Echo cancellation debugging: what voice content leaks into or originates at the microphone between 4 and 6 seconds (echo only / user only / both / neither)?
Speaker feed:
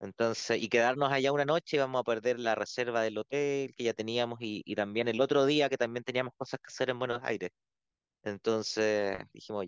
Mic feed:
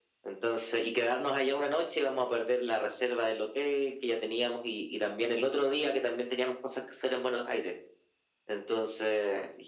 echo only